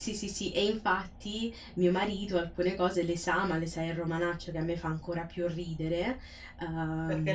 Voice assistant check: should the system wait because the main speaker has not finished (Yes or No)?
No